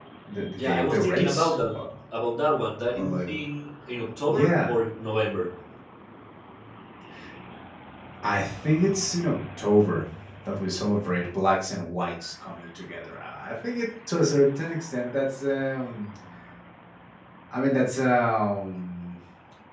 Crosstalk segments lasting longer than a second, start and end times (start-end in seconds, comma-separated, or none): 0.6-1.8